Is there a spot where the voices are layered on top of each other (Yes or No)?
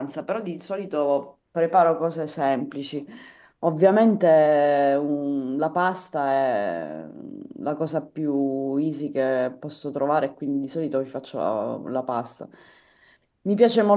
No